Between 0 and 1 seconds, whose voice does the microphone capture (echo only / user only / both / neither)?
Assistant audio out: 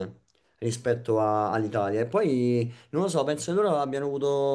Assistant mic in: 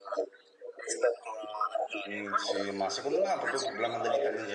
echo only